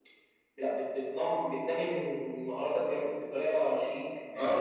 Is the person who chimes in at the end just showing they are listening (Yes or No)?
No